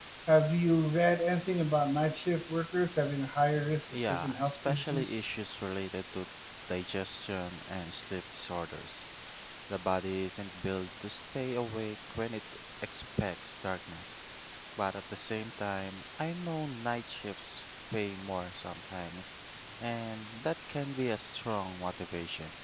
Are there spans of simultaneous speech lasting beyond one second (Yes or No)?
Yes